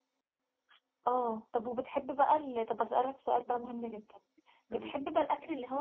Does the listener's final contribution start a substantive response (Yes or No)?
No